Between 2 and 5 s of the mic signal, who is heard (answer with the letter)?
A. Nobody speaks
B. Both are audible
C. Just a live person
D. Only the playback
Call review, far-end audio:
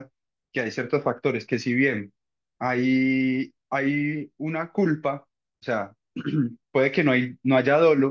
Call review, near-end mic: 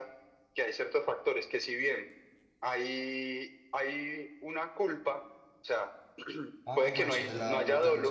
D